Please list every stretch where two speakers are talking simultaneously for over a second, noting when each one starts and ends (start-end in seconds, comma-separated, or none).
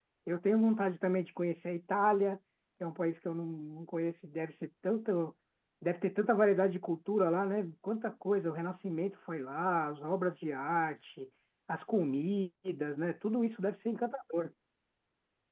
none